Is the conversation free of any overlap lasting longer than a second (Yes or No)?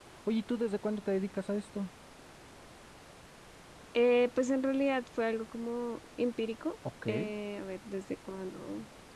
Yes